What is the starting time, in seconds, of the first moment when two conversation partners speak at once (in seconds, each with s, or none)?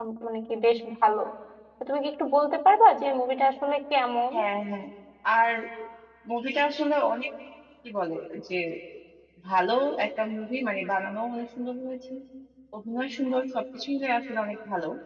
none